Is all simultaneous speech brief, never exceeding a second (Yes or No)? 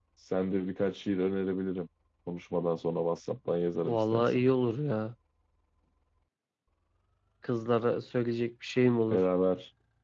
Yes